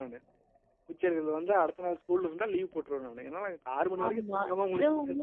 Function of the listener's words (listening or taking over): taking over